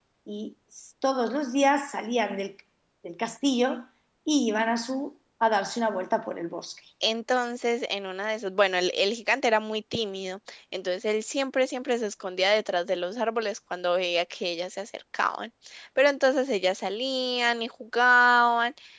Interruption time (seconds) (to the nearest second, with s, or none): none